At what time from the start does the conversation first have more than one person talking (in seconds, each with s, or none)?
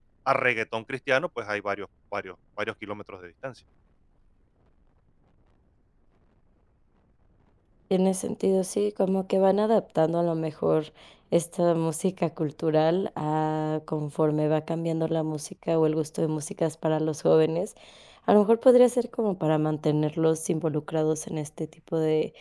none